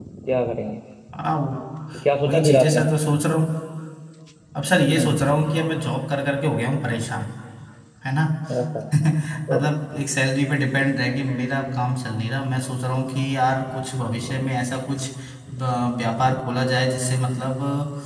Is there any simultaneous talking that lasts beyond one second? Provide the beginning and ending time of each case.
none

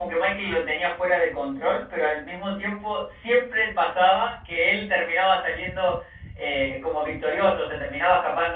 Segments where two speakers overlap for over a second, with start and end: none

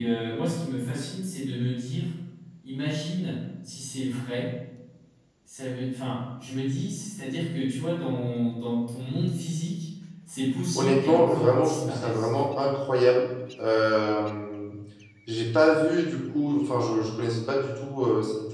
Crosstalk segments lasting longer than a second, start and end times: 10.8-12.5

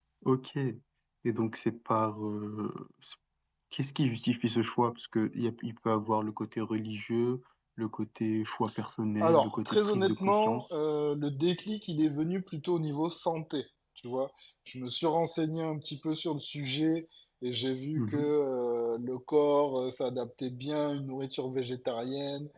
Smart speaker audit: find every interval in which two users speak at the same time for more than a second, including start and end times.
9.2-10.8

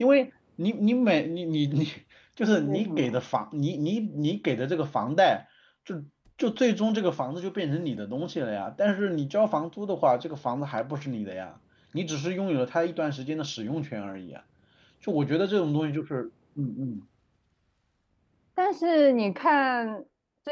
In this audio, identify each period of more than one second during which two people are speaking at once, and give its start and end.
none

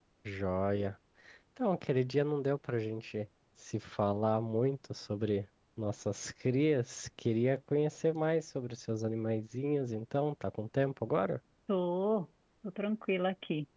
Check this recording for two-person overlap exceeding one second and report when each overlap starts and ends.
none

